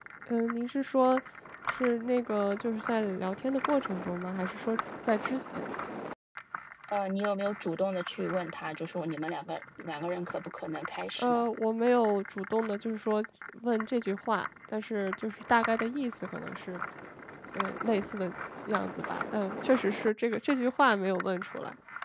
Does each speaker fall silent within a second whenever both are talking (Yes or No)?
Yes